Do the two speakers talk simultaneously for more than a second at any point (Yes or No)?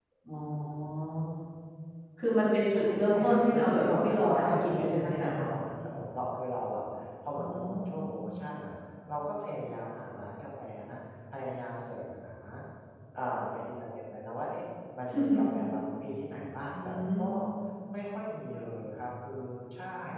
Yes